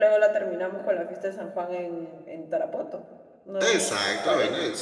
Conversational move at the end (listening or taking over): taking over